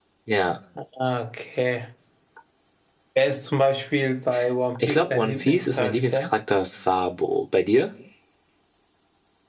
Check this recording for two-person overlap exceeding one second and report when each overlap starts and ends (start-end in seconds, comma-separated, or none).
4.8-6.4